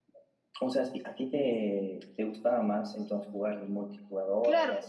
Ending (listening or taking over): taking over